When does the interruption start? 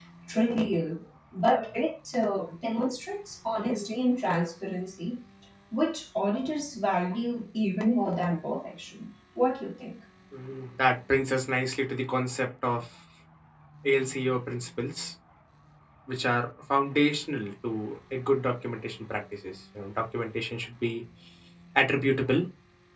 none

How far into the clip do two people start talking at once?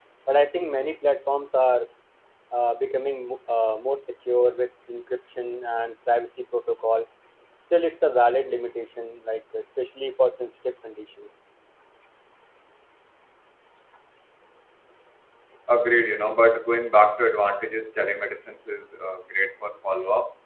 none

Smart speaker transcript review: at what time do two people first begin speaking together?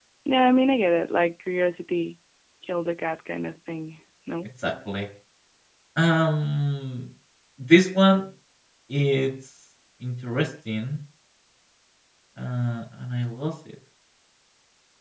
none

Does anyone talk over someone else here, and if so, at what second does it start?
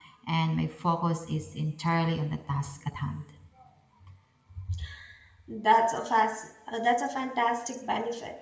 none

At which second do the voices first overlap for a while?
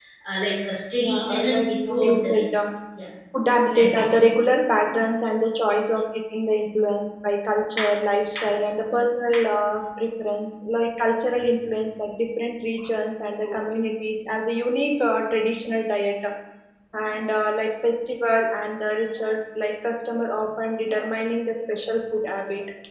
1 s

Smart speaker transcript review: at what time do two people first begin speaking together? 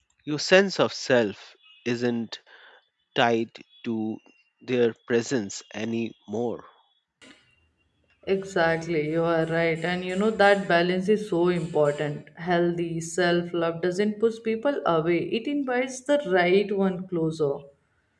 none

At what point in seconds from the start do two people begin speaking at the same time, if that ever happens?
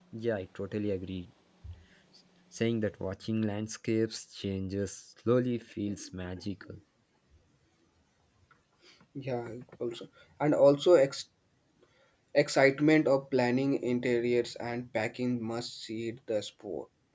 none

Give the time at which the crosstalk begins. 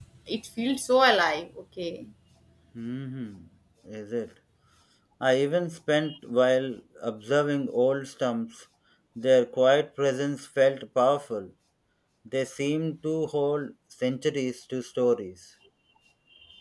none

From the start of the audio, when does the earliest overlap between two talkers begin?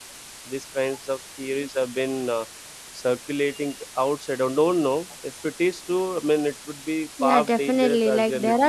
7 s

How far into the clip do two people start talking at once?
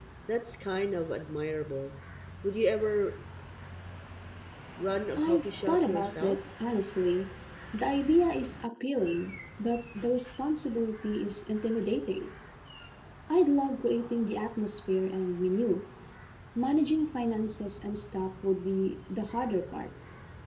5 s

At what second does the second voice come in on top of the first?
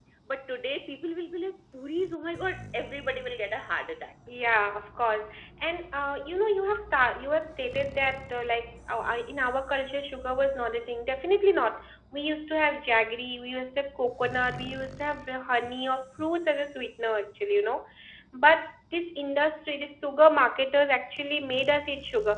none

